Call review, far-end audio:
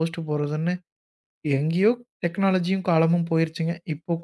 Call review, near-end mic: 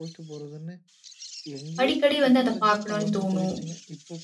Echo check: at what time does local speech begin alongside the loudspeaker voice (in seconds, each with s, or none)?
1.8 s